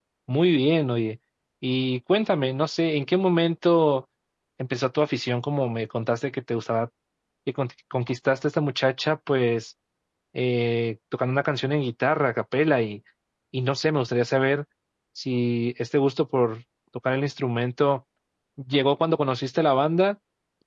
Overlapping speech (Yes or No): No